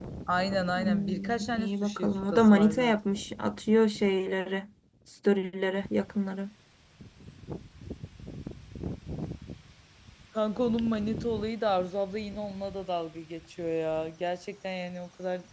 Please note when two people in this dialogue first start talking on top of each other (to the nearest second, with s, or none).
1 s